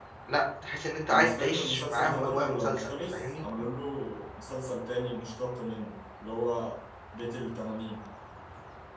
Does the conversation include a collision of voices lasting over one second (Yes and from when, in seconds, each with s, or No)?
Yes, from 1.1 s